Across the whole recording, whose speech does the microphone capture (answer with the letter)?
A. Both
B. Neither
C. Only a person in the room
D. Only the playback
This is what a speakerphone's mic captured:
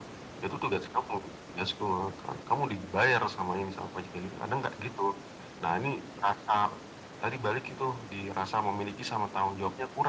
D